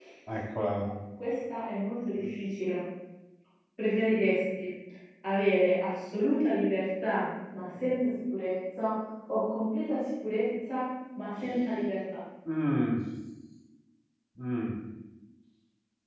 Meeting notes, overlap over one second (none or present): none